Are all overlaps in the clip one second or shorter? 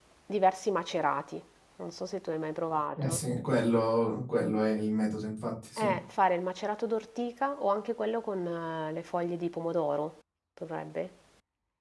Yes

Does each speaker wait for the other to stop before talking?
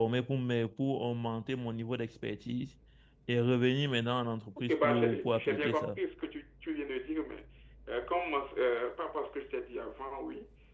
No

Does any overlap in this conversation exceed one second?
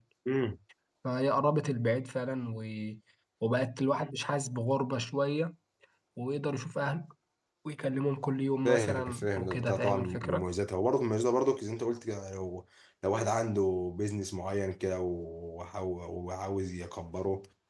Yes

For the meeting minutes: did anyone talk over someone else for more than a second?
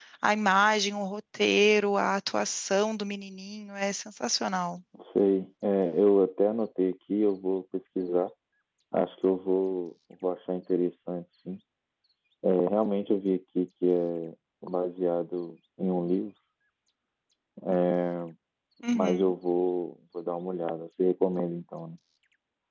No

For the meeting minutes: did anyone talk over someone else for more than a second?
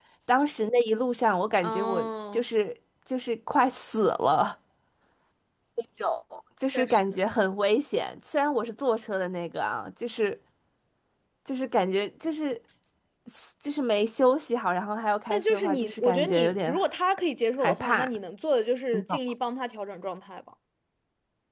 Yes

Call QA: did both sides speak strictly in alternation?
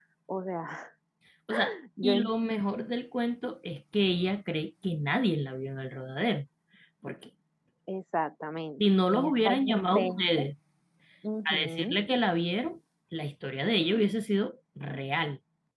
No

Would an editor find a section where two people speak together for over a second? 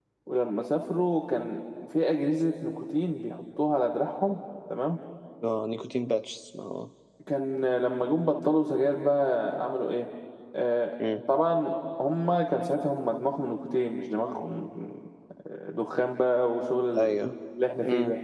No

